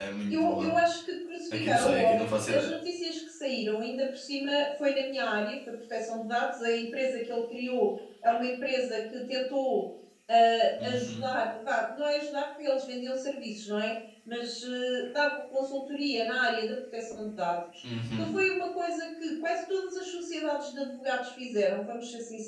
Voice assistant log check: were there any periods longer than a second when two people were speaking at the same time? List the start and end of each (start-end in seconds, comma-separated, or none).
1.5-2.7